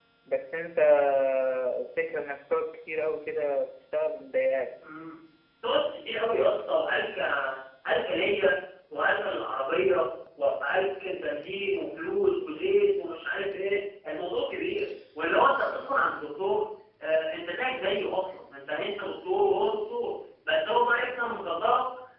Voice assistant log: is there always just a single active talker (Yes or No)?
Yes